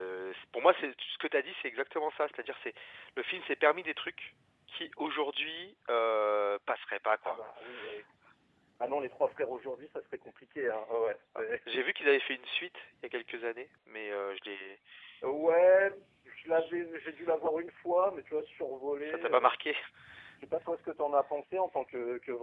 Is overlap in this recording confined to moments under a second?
Yes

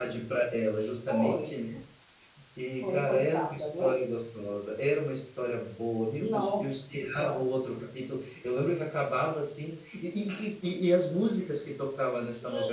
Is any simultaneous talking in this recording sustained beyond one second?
Yes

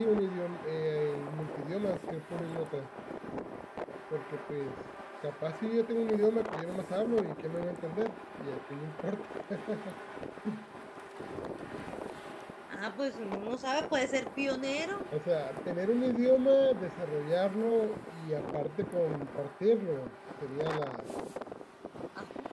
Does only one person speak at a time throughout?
Yes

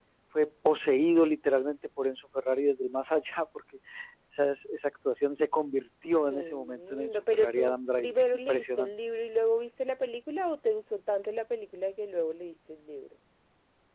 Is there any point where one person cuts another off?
Yes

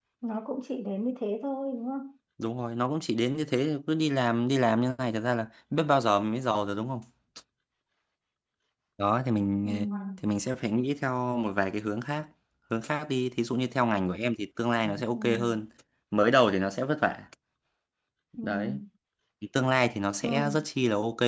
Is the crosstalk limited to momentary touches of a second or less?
Yes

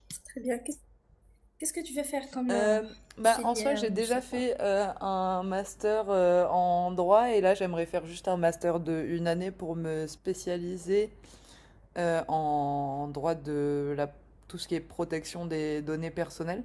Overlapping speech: Yes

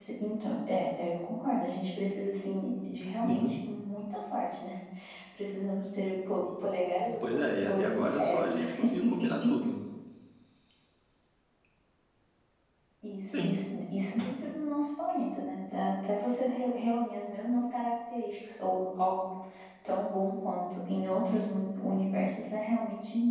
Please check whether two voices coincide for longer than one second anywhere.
Yes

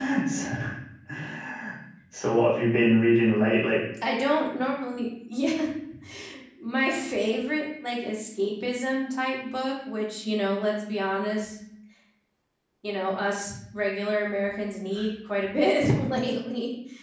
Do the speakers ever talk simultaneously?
No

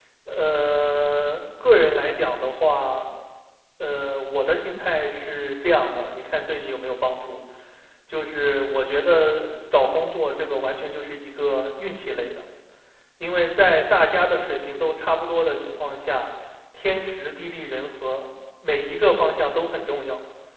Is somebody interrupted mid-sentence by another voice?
No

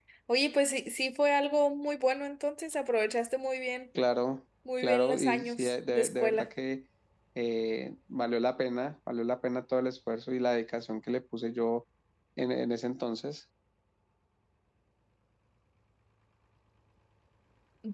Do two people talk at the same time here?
Yes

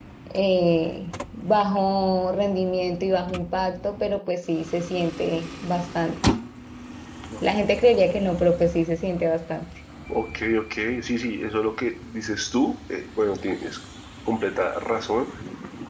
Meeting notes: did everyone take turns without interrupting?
Yes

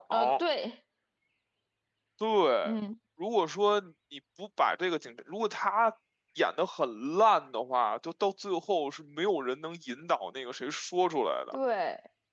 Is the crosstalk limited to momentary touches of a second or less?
Yes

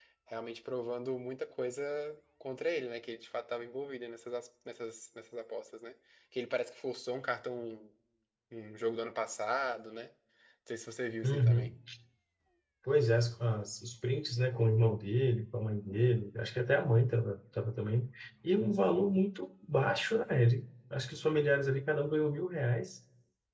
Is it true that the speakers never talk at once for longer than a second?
Yes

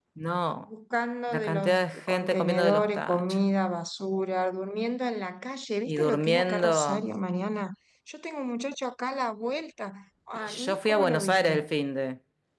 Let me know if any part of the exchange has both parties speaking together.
Yes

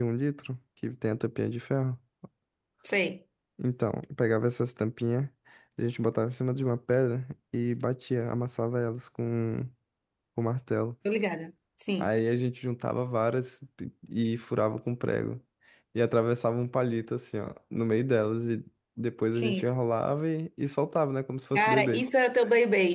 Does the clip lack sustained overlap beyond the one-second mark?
Yes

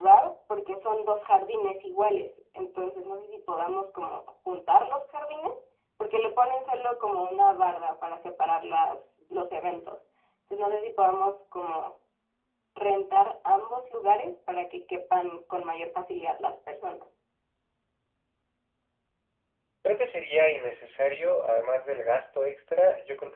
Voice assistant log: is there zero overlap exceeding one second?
Yes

